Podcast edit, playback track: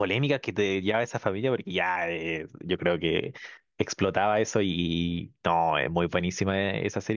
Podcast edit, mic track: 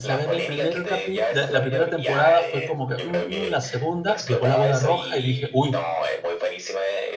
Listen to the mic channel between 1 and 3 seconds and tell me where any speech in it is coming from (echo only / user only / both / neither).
both